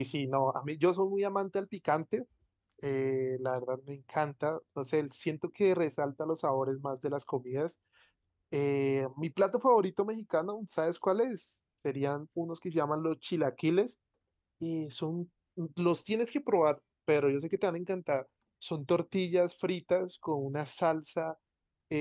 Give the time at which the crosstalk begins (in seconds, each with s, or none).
none